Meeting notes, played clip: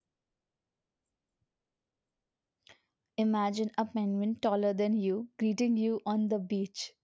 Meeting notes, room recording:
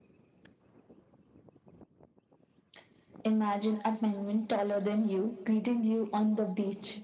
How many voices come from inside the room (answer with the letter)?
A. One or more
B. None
B